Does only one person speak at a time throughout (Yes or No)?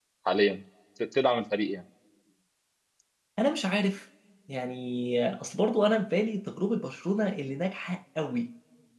Yes